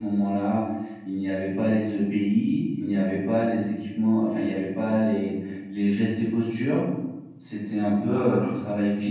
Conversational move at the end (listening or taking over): listening